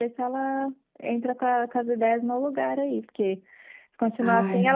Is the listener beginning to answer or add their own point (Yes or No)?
No